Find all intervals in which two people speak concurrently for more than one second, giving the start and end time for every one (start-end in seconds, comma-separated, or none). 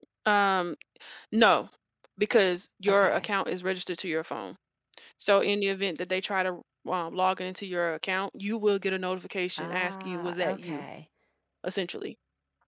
9.6-10.8